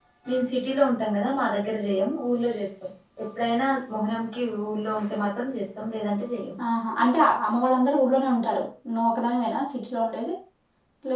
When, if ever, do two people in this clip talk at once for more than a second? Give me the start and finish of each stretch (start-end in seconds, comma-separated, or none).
none